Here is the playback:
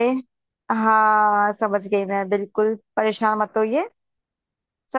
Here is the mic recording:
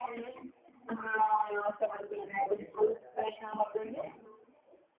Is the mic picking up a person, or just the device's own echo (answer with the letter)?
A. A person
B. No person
A